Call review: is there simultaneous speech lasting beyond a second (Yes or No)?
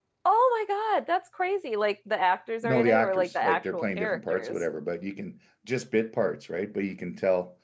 Yes